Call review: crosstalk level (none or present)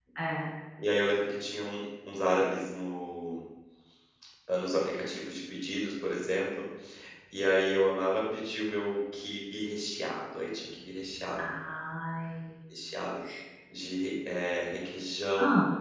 none